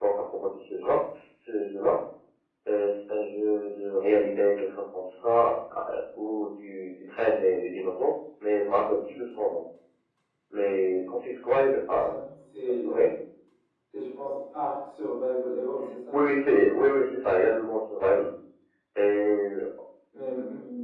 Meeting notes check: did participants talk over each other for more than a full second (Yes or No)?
No